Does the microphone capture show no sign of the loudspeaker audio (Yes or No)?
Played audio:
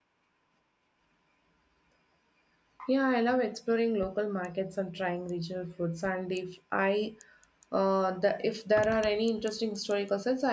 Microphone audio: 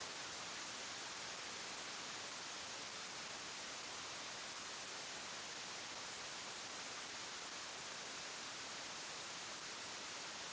Yes